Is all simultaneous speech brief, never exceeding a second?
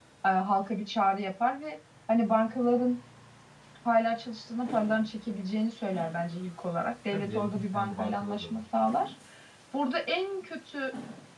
No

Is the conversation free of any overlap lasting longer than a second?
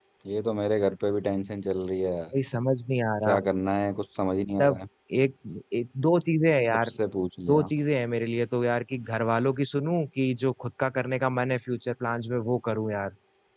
Yes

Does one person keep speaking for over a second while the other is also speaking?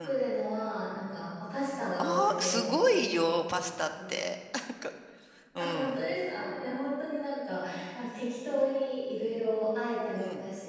Yes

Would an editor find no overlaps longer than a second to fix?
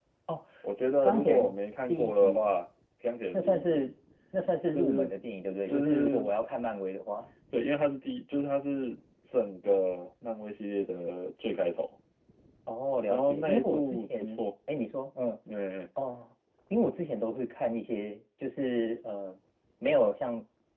No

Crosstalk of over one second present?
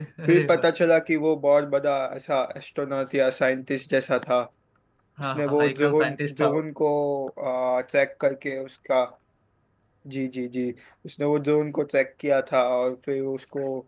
Yes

